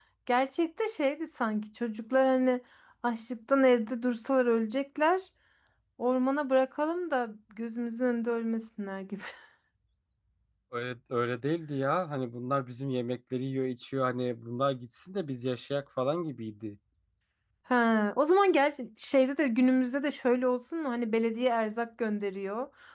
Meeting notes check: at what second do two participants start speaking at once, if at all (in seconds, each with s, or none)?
none